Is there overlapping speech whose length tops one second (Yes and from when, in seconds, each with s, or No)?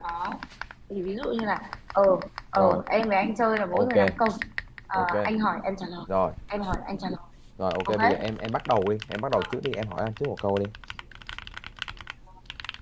No